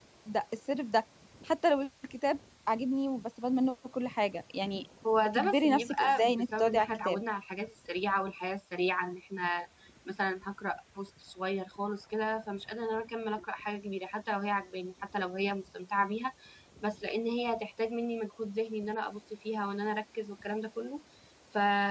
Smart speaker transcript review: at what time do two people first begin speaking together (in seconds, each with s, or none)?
5.0 s